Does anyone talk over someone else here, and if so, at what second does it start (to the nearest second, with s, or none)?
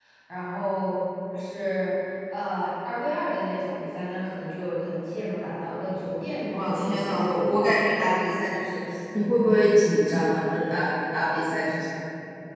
6 s